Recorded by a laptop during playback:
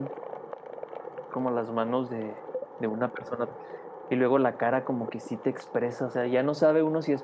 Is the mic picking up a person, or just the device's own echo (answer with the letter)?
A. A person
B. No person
A